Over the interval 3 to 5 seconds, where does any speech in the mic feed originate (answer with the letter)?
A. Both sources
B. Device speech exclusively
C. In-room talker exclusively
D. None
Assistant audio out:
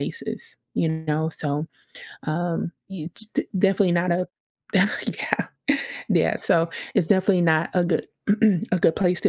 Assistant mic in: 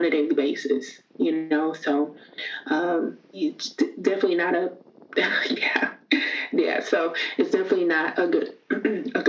B